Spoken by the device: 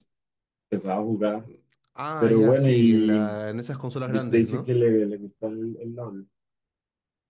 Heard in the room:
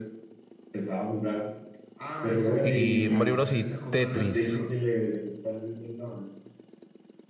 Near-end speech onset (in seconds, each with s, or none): 2.6 s